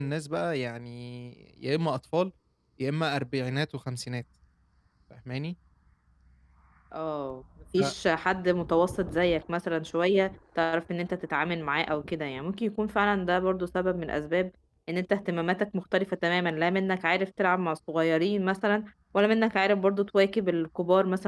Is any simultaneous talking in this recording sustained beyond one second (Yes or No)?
No